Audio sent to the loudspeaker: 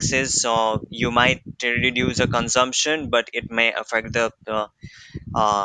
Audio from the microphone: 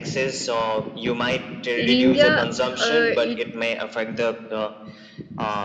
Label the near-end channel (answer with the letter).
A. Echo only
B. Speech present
B